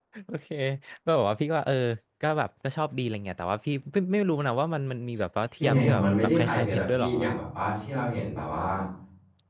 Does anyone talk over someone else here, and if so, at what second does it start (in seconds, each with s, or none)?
5.6 s